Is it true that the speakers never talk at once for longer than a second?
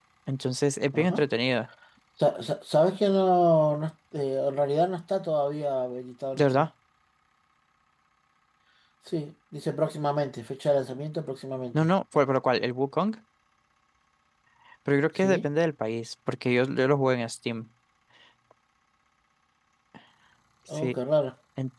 Yes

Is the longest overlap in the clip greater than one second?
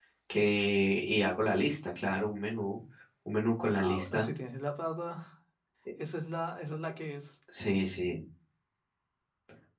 No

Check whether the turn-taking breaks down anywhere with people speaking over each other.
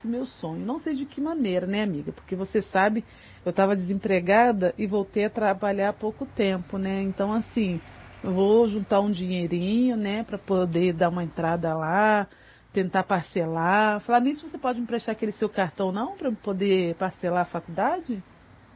No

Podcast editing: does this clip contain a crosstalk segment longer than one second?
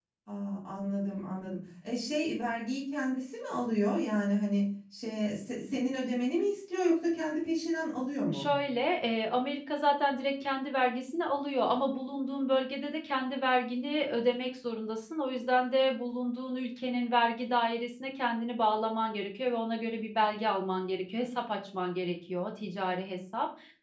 No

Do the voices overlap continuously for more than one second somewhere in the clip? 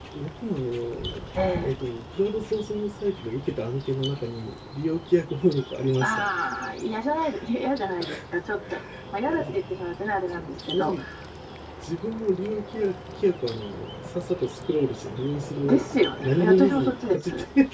Yes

